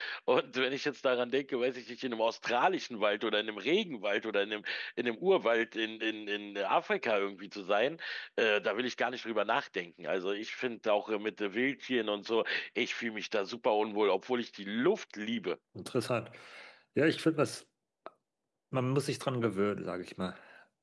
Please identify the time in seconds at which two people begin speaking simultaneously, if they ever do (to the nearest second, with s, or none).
none